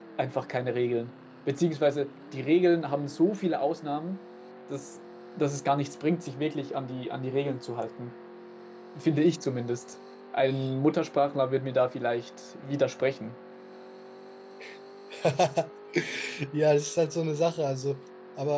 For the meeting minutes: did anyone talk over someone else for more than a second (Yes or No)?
No